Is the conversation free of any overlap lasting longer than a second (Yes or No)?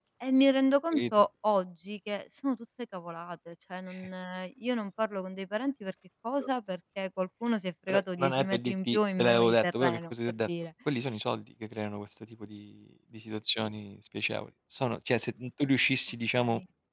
No